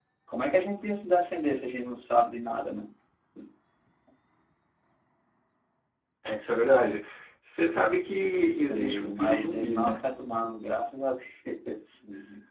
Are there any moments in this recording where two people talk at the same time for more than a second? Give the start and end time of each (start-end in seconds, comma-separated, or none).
8.3-10.0